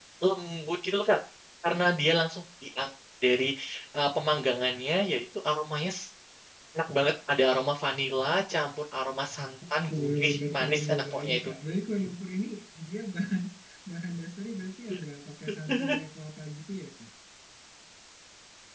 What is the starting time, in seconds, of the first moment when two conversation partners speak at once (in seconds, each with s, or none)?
10.0 s